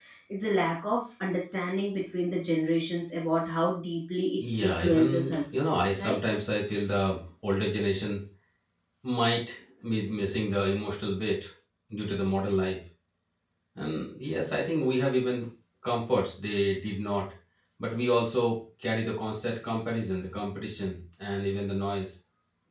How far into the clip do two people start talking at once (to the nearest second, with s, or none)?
4 s